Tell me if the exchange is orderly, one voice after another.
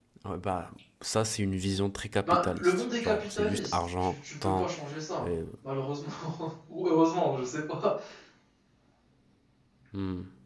No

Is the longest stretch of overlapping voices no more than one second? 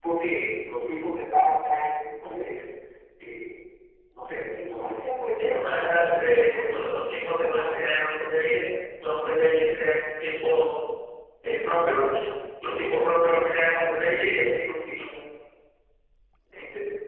No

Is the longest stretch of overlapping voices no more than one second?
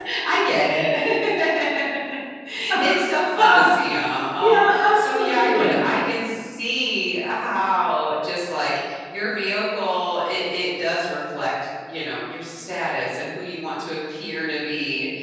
No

